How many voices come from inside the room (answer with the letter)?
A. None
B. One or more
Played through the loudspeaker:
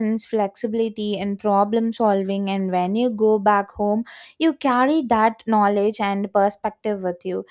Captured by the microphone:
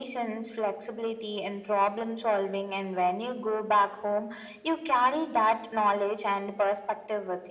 A